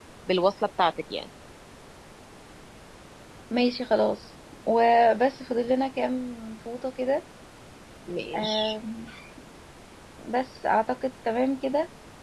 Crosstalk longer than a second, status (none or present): none